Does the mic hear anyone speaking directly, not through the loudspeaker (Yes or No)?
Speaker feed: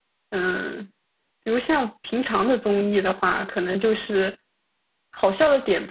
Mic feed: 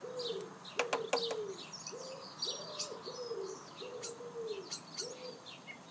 No